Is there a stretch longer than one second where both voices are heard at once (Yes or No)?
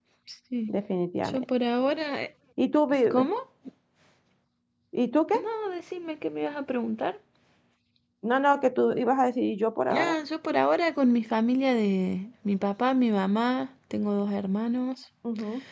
No